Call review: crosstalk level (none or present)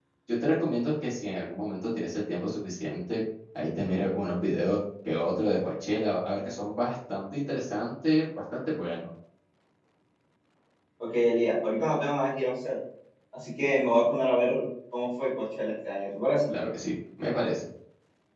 none